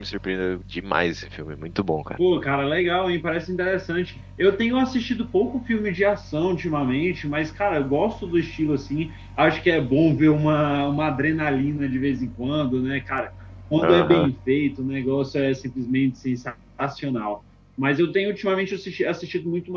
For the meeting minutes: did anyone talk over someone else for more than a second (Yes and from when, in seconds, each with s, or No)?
No